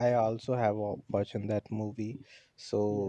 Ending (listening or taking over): listening